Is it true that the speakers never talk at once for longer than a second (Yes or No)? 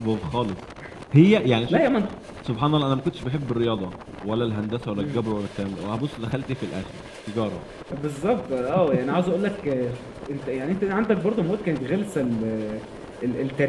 Yes